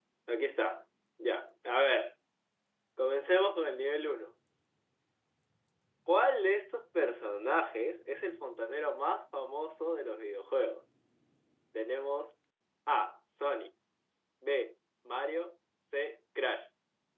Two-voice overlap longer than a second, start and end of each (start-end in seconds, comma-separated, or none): none